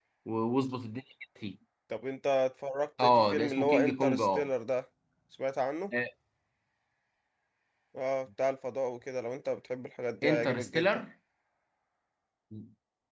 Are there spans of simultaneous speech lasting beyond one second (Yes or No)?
Yes